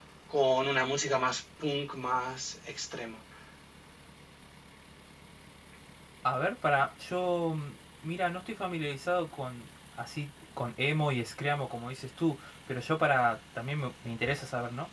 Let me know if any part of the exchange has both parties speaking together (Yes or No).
No